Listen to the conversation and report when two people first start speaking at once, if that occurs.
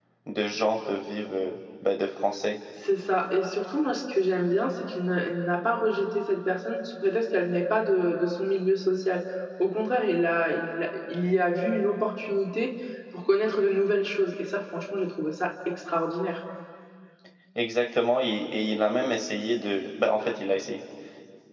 none

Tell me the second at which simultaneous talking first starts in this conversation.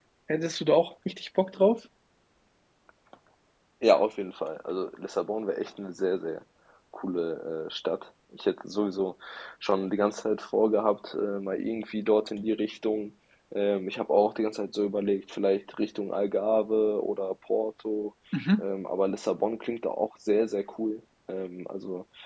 none

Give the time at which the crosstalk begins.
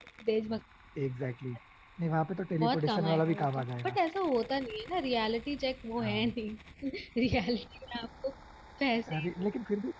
3 s

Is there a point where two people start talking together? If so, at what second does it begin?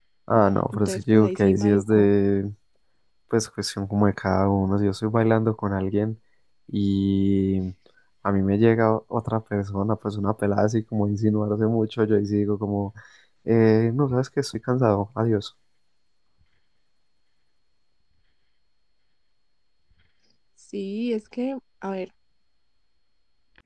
1 s

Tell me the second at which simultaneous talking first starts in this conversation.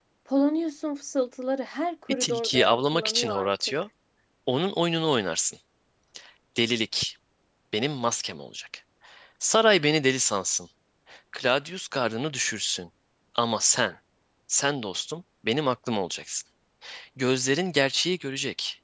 2 s

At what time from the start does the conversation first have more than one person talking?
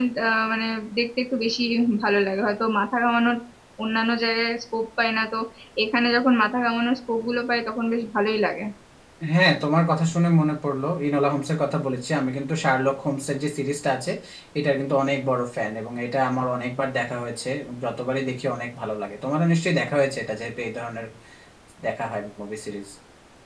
none

